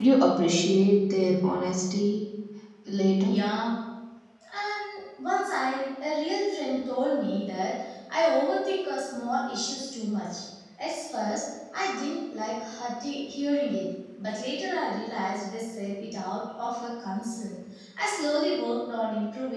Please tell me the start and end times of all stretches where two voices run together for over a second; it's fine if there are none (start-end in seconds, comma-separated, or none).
none